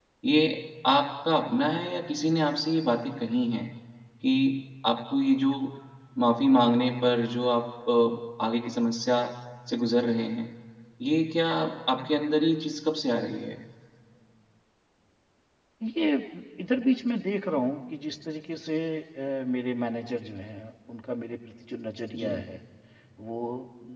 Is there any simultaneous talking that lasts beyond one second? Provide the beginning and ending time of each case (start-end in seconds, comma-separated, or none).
none